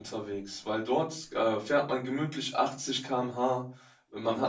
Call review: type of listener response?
listening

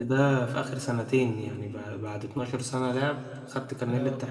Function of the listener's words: listening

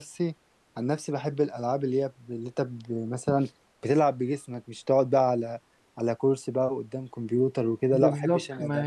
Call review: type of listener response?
taking over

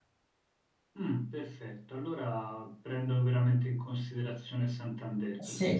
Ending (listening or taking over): taking over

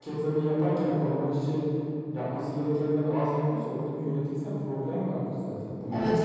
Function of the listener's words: taking over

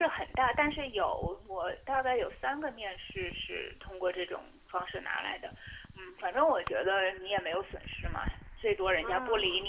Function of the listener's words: listening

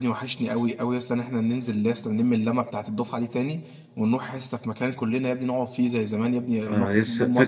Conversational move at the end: taking over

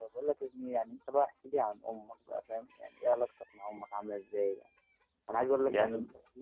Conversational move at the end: listening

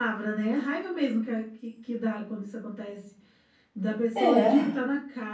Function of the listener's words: listening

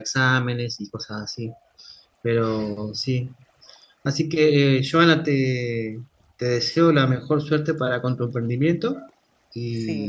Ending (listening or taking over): taking over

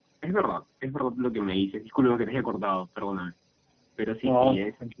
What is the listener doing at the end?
listening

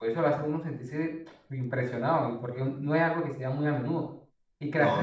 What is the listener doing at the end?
listening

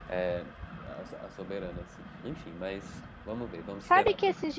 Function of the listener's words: taking over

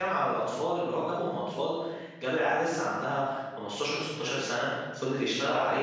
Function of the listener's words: listening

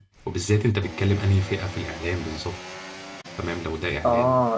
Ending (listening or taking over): taking over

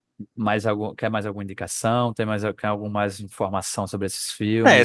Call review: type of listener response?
taking over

